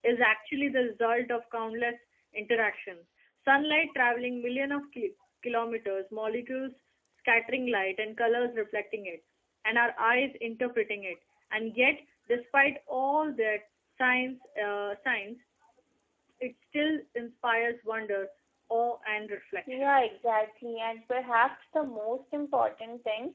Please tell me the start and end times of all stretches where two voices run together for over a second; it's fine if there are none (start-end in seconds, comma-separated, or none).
none